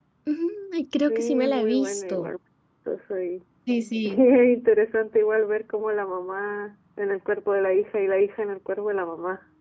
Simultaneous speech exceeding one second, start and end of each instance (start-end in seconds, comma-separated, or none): 1.1-2.3